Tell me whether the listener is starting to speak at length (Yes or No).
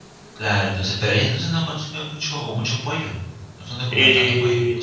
Yes